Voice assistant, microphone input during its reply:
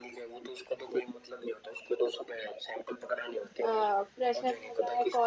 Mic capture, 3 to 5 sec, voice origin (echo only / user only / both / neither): both